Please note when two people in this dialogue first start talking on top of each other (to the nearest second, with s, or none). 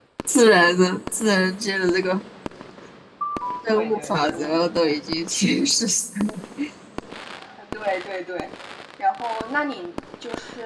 4 s